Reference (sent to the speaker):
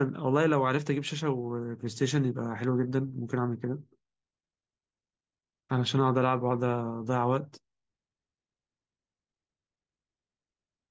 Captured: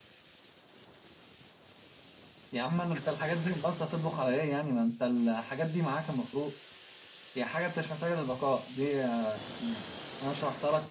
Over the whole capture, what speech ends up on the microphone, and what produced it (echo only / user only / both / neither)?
user only